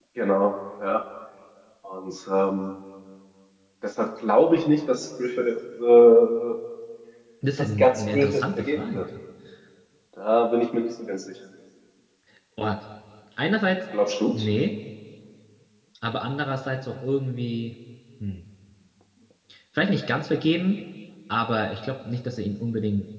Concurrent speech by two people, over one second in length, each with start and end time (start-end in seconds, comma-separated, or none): 7.8-9.0